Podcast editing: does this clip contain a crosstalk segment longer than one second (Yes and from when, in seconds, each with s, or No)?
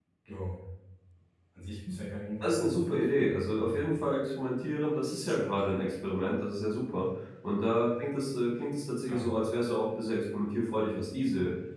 Yes, from 2.4 s